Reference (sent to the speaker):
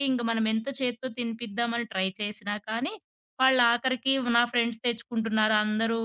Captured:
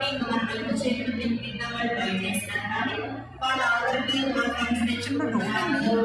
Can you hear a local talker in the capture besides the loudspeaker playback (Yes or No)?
Yes